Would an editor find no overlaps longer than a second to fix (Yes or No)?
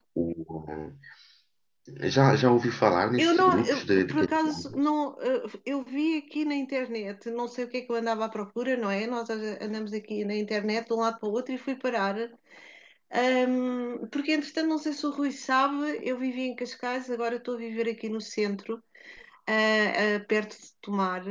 No